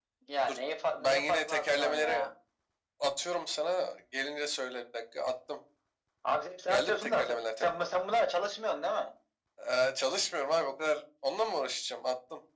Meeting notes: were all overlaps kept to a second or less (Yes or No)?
No